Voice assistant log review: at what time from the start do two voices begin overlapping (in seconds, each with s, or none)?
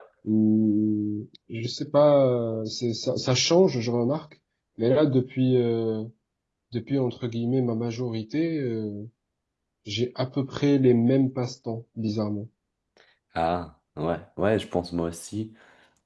none